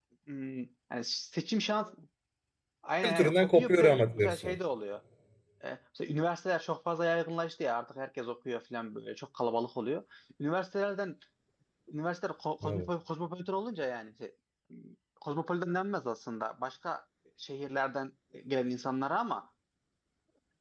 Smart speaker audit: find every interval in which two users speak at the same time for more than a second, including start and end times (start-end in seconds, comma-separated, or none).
3.0-4.6